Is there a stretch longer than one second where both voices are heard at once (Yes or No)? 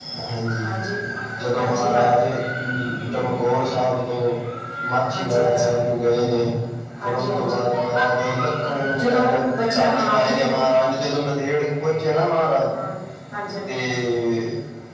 Yes